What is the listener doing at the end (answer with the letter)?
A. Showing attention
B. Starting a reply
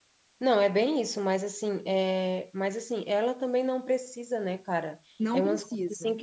A